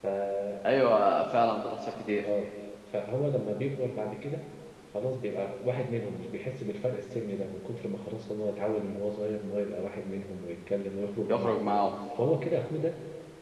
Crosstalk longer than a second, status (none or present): none